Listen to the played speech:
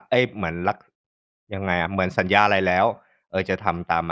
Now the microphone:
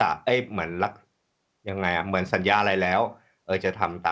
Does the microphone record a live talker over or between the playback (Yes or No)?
No